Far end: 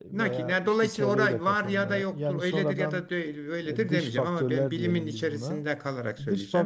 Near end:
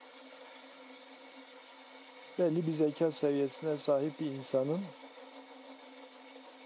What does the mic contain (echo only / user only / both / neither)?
user only